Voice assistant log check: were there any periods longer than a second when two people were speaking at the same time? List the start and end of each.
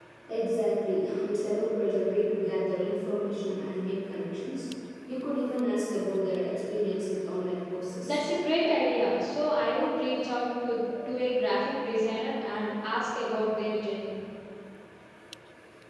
none

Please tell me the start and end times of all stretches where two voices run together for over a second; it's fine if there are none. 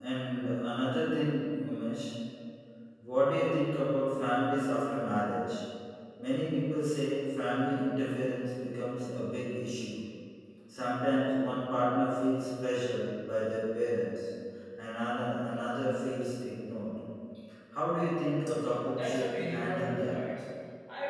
19.0-20.2

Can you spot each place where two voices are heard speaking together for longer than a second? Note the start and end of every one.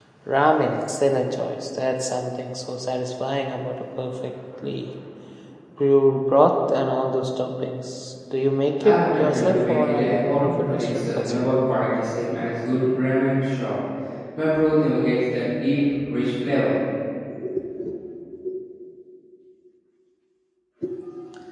8.8-11.5

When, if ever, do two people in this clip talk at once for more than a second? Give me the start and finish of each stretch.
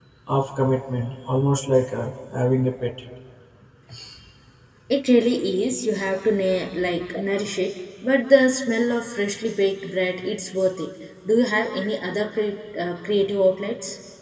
none

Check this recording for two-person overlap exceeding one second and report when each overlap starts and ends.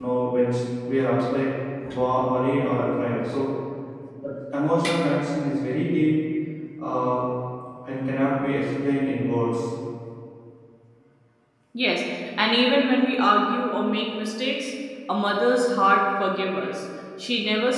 none

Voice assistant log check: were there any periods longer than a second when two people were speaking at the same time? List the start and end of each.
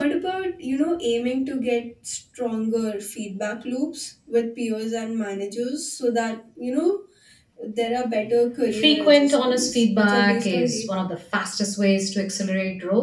8.7-11.1

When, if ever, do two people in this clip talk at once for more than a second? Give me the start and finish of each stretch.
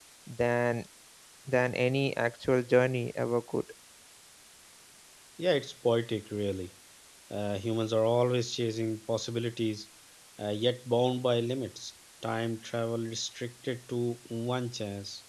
none

